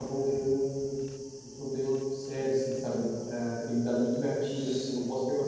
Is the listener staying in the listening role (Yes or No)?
Yes